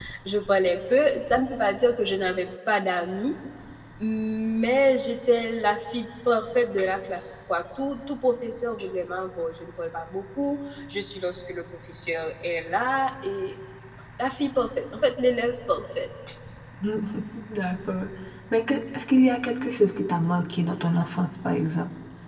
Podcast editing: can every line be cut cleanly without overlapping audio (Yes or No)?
Yes